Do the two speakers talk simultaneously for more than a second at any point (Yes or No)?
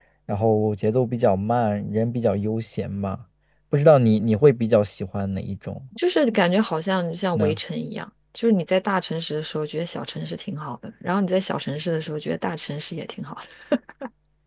No